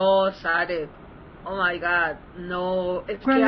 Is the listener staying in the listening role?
Yes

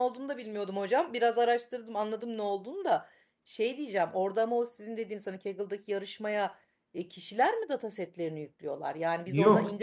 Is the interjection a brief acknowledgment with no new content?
No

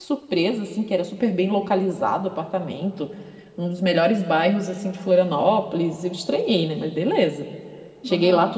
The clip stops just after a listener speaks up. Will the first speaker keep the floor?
Yes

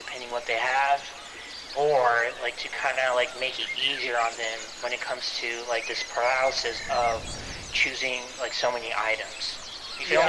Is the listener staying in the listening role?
No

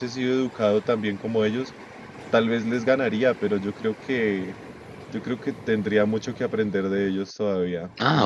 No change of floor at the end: No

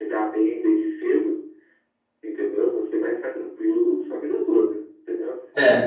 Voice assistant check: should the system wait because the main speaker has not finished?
Yes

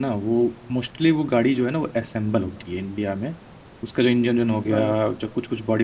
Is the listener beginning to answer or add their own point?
No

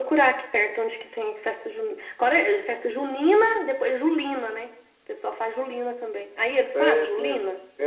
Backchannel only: No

